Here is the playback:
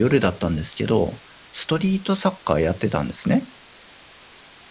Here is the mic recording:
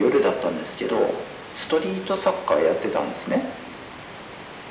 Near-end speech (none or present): none